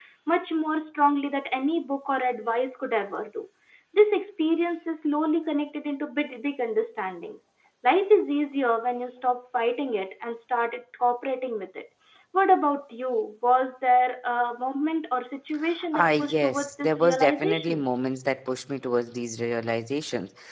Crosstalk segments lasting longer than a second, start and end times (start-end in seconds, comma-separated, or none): 15.9-17.8